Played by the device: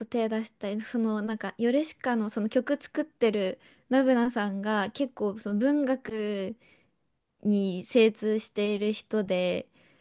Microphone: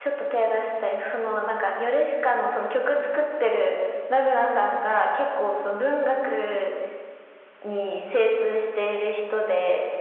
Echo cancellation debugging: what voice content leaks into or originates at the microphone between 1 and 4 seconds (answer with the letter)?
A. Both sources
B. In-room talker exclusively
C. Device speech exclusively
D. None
C